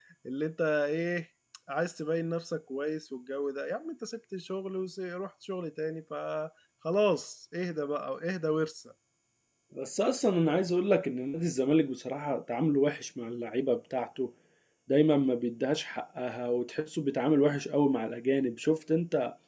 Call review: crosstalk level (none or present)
none